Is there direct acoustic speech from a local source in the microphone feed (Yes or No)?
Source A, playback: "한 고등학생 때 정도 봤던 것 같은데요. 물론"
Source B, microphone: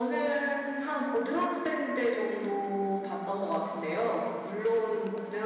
No